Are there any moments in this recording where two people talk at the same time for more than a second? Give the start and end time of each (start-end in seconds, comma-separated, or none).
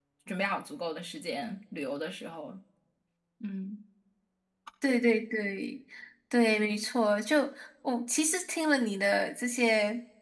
none